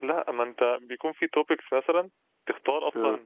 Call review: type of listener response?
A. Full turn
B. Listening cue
B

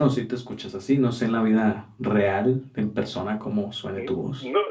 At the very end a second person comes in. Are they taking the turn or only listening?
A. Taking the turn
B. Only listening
A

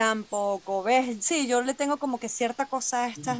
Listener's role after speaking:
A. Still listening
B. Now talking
B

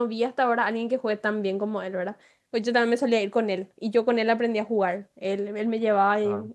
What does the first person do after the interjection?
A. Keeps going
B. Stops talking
A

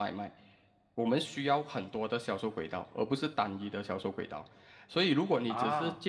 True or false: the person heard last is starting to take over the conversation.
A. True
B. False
B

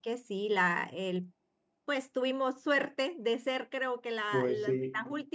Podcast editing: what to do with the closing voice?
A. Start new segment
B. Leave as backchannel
B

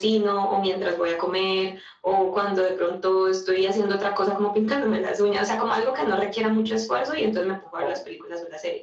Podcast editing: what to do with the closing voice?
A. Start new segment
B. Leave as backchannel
B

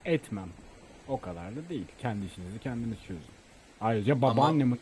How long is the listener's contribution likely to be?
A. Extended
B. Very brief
B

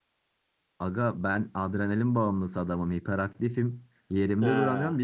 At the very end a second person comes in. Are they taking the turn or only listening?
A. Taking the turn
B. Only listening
B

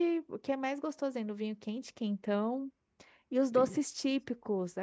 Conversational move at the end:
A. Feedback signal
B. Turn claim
A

